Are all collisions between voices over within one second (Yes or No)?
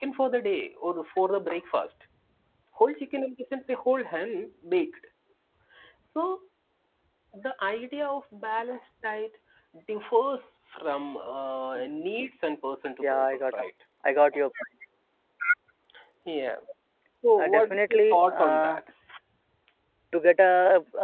No